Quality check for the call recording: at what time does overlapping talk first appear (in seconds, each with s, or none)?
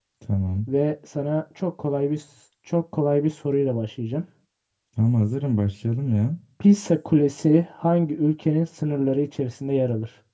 none